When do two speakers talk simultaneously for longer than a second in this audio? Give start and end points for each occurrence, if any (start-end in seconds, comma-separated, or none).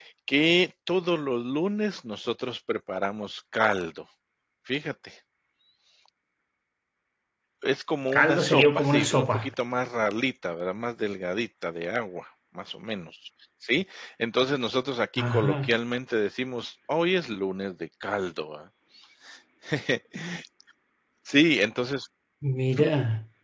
8.1-9.5